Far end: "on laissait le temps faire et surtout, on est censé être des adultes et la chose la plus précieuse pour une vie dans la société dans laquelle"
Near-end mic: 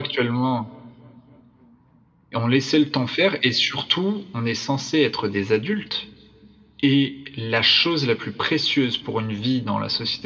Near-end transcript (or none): none